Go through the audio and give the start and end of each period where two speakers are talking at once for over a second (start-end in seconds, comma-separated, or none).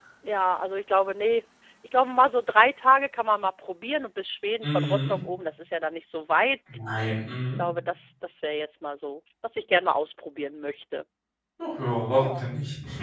none